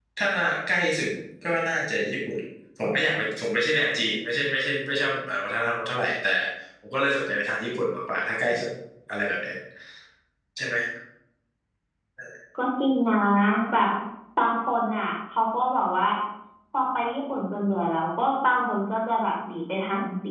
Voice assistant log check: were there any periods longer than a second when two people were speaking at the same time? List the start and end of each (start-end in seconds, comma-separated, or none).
none